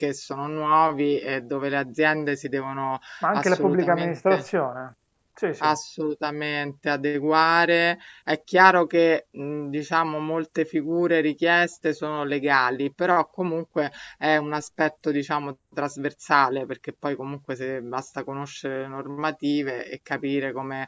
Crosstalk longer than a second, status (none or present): present